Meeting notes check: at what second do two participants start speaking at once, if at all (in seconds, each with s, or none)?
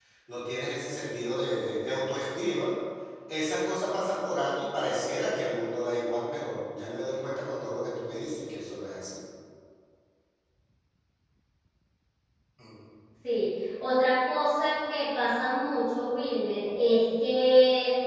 none